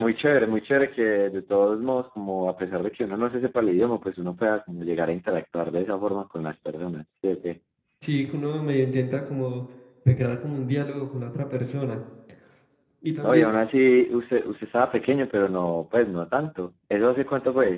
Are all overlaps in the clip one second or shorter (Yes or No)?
Yes